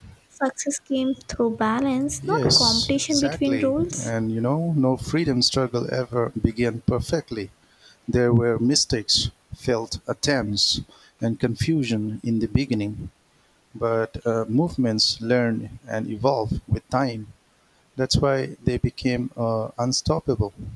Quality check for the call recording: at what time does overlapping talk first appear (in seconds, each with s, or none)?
2.2 s